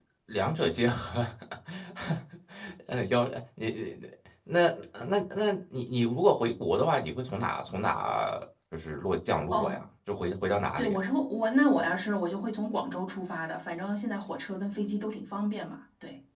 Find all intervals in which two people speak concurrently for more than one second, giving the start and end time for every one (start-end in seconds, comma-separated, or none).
none